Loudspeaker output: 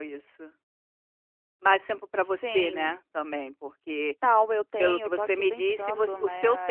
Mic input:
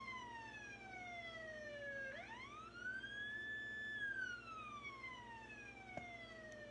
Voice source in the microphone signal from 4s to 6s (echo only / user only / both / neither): neither